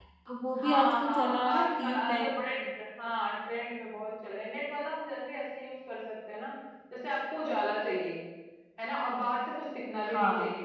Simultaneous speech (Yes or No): Yes